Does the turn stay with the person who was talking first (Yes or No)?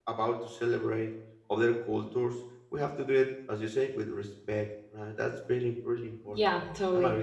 No